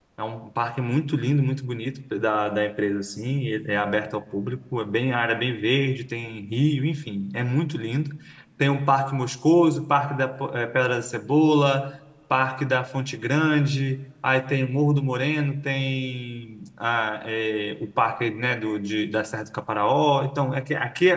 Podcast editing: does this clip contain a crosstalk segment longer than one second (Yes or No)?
No